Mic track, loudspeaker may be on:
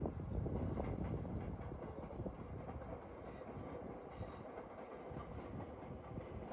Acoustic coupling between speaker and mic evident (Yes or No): No